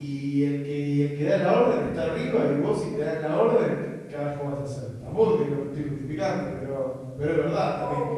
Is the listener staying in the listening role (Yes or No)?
No